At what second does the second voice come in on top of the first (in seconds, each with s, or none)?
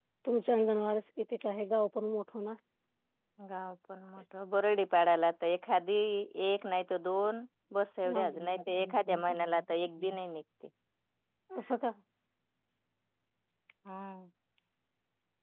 8.0 s